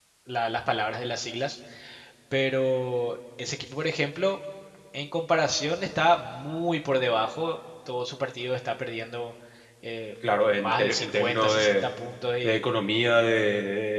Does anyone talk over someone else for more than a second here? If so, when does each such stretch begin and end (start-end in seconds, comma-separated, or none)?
10.4-11.9